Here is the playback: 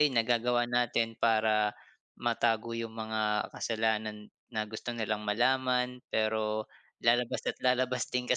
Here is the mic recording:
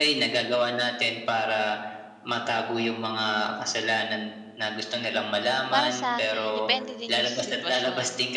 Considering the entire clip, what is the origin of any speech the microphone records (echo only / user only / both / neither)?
both